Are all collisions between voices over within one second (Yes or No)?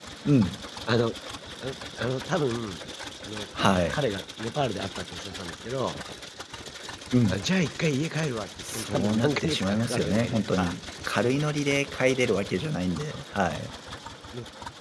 No